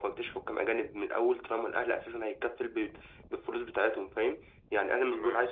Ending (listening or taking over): listening